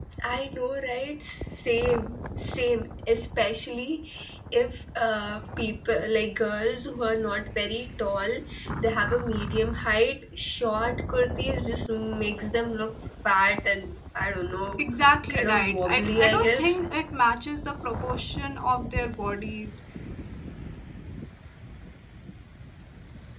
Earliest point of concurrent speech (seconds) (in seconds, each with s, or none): 15.3 s